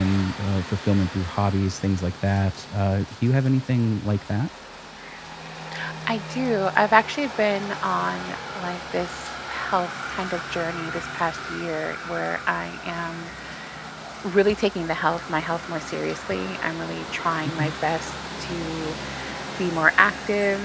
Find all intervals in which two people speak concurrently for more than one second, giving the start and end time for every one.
none

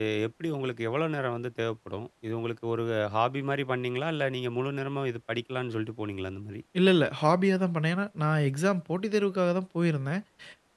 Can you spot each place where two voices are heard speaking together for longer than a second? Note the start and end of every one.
none

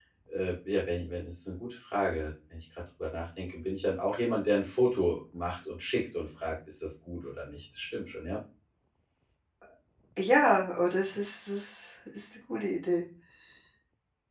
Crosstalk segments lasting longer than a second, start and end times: none

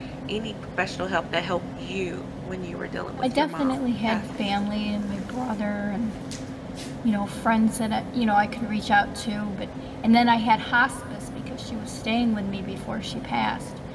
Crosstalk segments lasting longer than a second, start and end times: 3.2-4.5

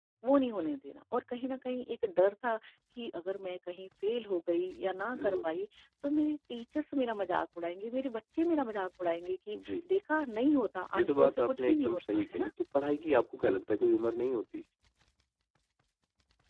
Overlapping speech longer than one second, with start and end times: 11.0-12.5

